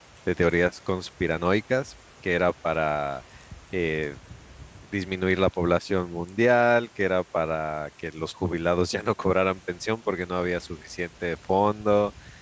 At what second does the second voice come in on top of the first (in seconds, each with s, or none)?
none